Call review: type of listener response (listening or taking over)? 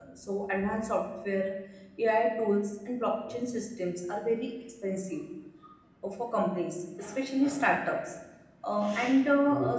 listening